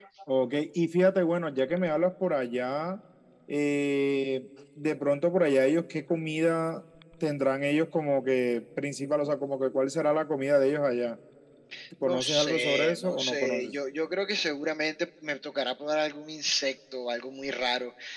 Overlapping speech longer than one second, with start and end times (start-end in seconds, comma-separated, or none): 12.0-13.7